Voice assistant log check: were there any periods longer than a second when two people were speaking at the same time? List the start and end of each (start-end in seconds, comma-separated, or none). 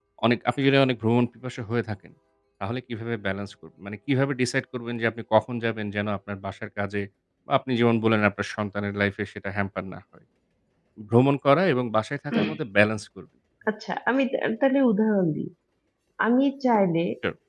none